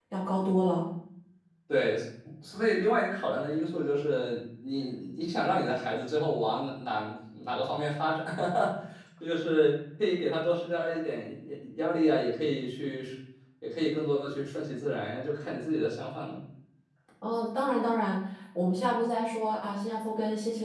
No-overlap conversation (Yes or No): Yes